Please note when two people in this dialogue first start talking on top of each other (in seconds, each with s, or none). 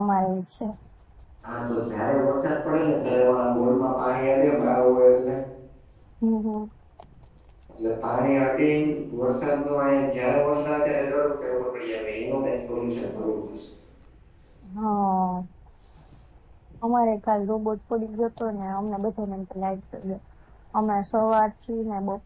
none